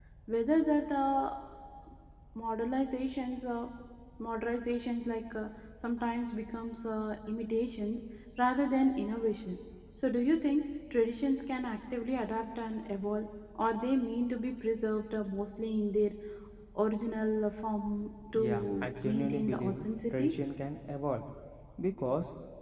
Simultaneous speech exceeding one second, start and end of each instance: 18.4-20.3

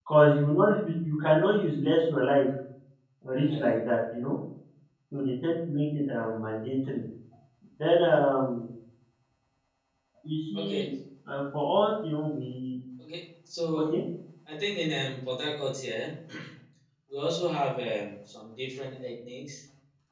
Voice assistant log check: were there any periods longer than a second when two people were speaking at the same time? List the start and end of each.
none

